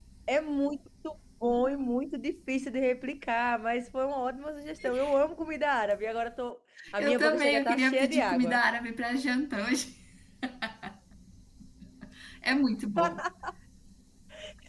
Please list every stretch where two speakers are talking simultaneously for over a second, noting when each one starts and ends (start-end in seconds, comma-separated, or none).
7.0-8.6